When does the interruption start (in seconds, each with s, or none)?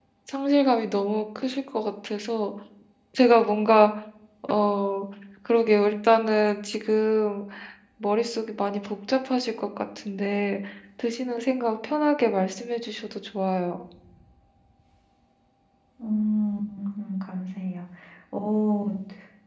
none